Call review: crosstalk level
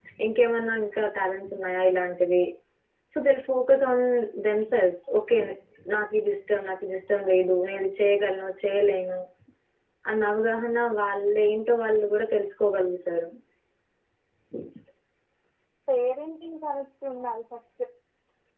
none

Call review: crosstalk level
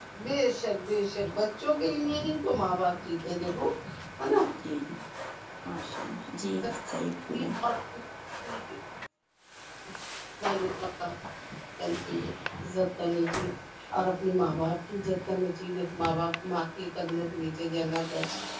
none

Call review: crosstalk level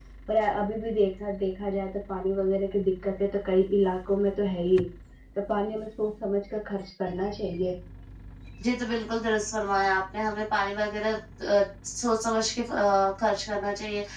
none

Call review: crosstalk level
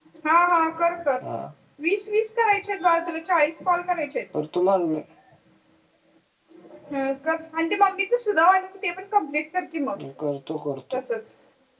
none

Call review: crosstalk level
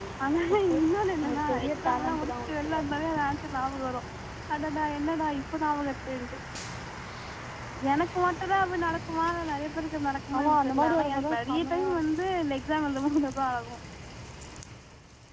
present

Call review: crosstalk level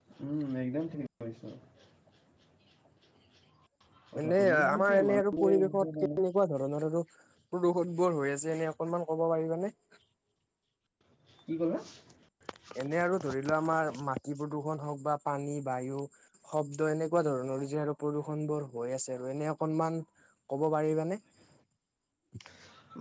present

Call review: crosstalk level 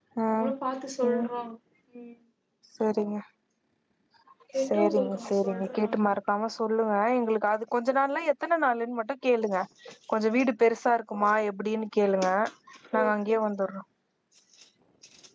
present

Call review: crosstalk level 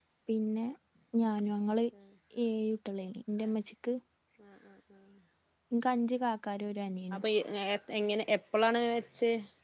none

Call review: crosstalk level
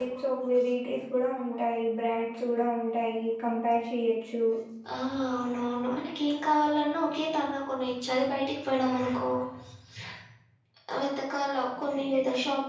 none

